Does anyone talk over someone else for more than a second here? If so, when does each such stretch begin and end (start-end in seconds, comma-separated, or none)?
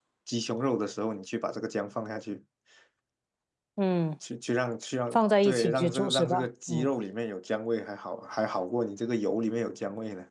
5.1-6.9